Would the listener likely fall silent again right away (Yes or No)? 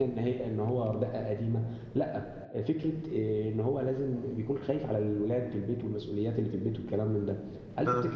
Yes